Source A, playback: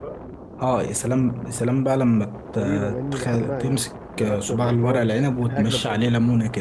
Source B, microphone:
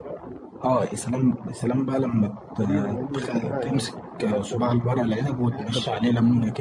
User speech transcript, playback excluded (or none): none